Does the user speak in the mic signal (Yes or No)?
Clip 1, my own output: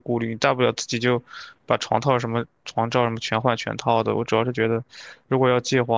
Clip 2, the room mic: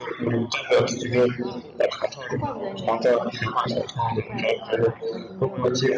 Yes